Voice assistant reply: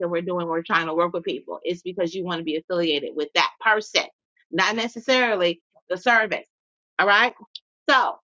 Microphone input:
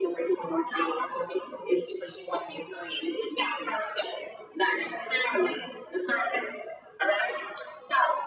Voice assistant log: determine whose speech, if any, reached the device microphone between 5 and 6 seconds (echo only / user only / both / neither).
echo only